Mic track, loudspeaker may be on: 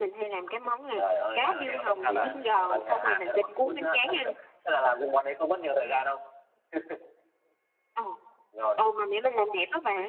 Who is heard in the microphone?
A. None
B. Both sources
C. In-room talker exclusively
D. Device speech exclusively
B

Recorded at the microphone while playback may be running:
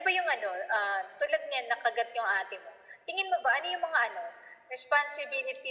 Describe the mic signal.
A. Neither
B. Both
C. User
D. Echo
D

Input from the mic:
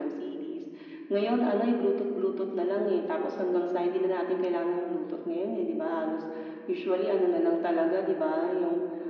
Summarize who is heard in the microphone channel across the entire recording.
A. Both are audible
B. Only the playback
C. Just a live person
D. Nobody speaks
B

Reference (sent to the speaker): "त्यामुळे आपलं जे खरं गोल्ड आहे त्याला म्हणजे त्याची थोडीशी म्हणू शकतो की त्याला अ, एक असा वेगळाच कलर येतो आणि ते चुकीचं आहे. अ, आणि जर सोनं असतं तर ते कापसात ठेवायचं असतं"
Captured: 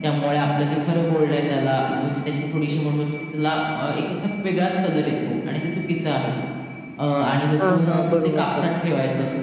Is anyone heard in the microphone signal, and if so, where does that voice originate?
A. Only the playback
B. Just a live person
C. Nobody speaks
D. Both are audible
D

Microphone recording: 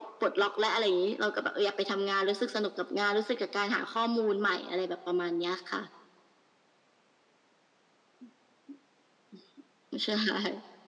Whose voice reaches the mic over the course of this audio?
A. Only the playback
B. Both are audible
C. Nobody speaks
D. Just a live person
A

